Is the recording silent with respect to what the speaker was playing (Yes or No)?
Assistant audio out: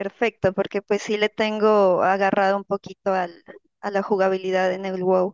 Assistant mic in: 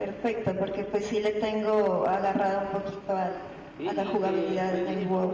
No